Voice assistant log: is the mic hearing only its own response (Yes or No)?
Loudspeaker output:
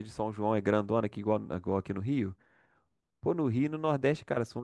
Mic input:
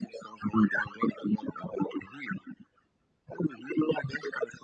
Yes